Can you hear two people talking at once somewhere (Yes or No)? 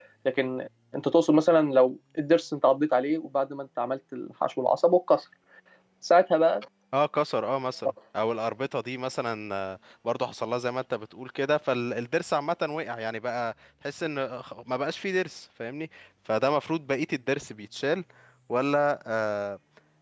No